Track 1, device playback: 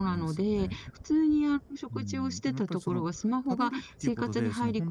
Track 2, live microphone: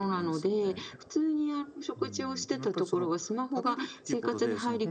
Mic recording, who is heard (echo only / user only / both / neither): echo only